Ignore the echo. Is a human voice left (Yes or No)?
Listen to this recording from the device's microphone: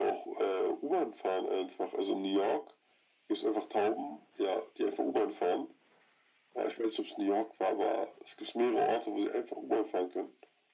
No